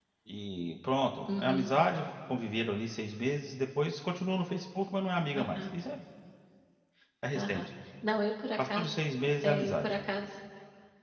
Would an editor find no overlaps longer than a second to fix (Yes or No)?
Yes